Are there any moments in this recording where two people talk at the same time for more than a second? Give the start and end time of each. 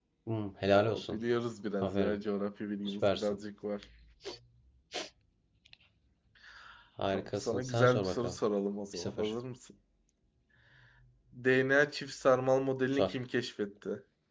7.1-8.4

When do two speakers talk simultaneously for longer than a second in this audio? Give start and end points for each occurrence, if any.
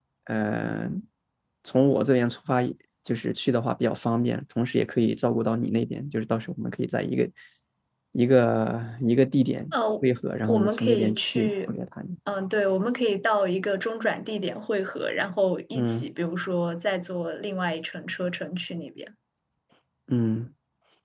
10.5-11.7

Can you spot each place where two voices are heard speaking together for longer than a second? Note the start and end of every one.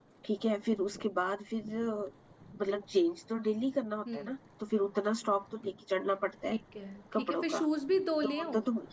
none

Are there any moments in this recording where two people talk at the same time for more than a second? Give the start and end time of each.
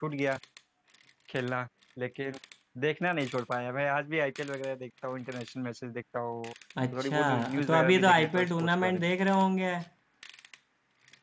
6.9-9.1

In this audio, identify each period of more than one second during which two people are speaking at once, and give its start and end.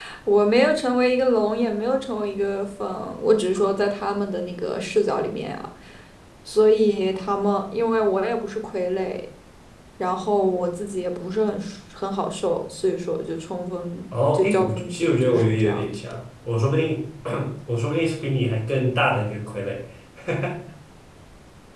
14.3-15.9

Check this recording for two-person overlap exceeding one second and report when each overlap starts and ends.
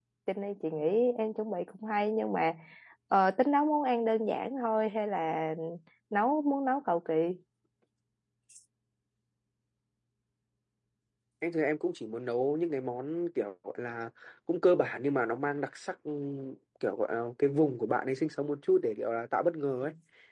none

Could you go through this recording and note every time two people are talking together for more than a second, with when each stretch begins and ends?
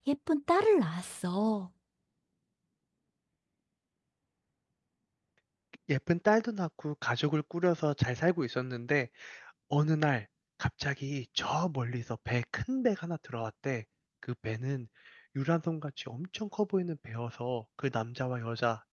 none

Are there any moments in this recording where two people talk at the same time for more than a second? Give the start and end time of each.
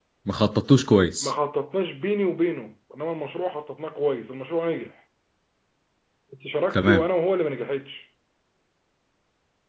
none

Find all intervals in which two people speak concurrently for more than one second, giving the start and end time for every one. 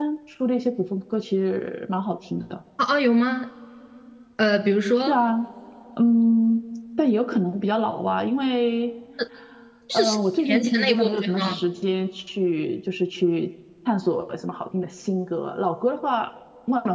9.9-11.6

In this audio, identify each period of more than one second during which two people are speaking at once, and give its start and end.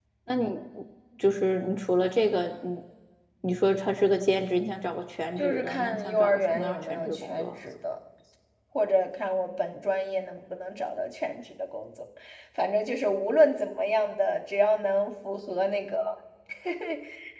5.4-7.6

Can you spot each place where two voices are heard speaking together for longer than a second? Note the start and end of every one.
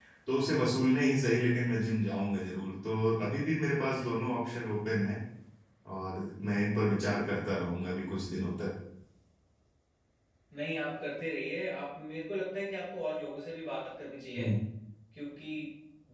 none

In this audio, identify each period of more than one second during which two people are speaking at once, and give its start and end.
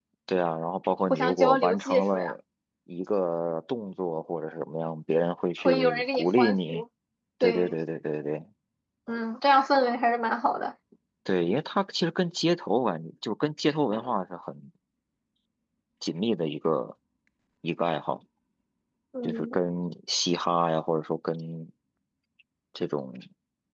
1.1-2.3, 5.6-6.8

